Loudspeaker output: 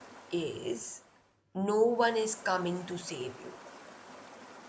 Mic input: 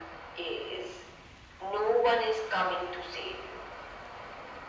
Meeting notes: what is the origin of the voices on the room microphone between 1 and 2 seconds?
echo only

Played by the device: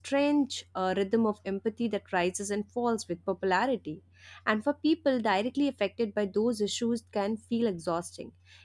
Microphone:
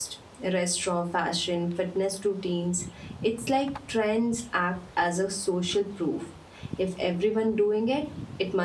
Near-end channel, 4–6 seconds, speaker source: user only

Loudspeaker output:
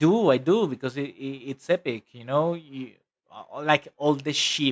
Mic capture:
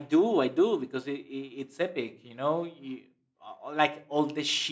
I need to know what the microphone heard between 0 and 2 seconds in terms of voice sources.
echo only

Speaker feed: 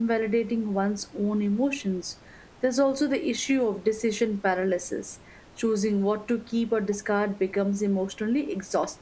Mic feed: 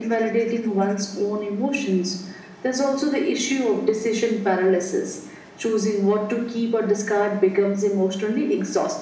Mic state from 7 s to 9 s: echo only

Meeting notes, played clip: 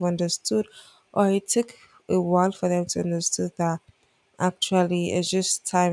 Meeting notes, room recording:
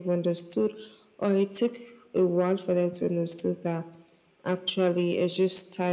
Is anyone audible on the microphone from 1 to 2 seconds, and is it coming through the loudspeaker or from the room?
echo only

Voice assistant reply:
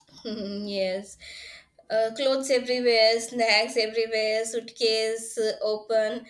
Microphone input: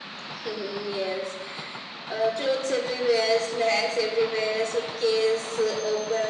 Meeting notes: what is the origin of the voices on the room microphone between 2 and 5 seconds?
echo only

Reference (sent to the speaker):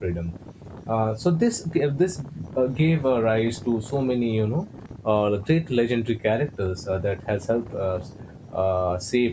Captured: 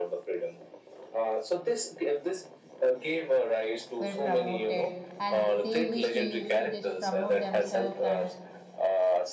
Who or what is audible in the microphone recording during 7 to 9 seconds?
both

